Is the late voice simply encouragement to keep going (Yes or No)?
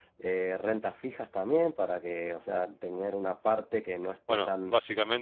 No